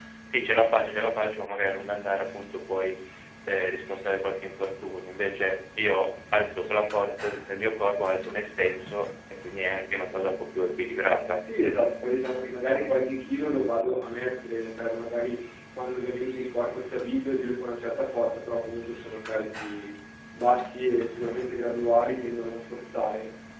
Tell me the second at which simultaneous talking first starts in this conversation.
none

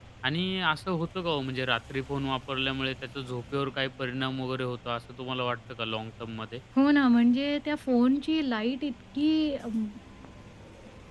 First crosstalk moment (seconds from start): none

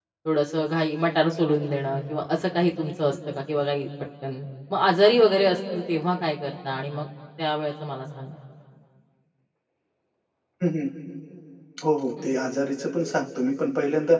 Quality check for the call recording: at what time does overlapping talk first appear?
none

